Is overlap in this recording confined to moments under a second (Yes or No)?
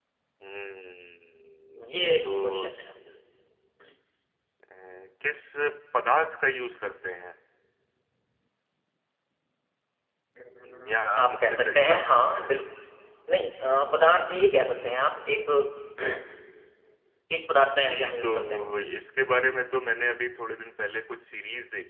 No